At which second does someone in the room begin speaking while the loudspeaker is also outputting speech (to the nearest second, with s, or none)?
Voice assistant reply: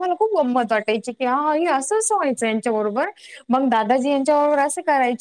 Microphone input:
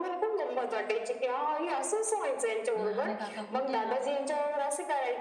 3 s